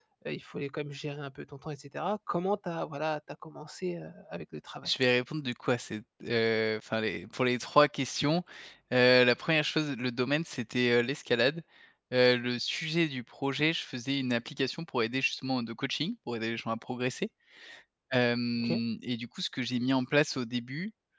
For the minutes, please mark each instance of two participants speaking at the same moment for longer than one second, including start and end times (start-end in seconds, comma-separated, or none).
none